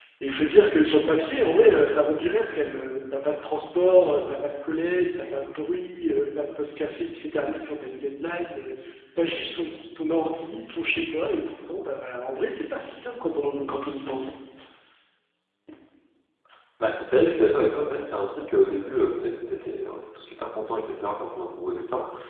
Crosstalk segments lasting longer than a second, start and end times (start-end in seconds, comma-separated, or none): none